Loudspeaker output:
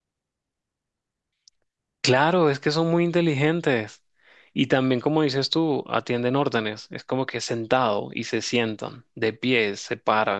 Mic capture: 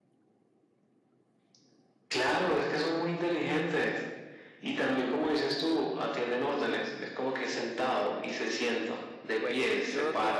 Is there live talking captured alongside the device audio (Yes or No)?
Yes